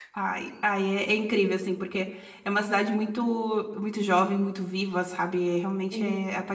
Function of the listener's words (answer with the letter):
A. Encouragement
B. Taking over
B